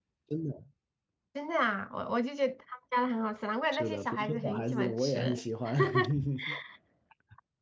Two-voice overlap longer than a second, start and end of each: 3.7-5.4

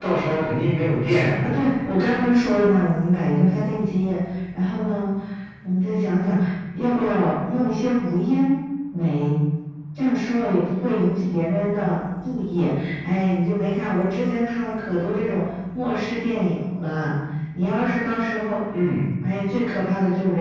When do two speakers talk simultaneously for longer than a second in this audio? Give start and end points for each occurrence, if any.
none

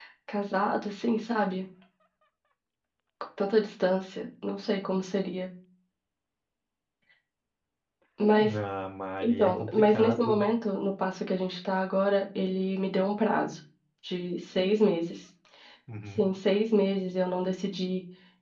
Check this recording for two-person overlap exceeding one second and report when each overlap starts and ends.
9.2-10.4

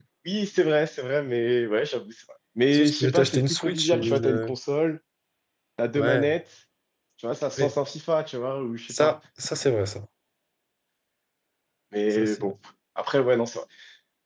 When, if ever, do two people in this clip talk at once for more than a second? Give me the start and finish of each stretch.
2.7-4.5

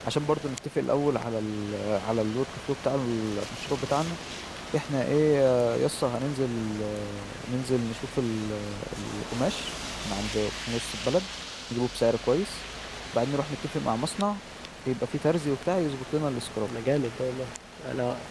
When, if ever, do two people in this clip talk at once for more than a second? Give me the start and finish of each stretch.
none

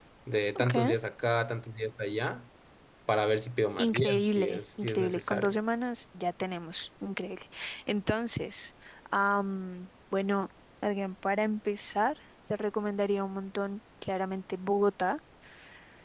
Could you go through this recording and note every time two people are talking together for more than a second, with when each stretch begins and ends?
3.8-5.6

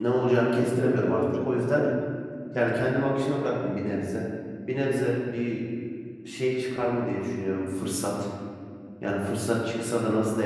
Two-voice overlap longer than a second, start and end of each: 0.5-1.8

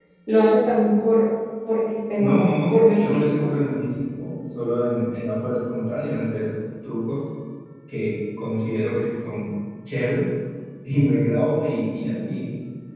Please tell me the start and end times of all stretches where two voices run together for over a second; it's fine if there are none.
2.2-3.5

